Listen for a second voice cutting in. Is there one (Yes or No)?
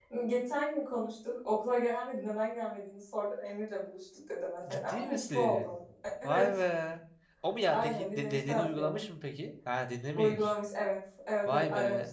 Yes